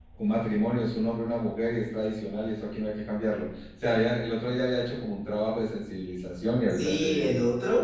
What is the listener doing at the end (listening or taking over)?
taking over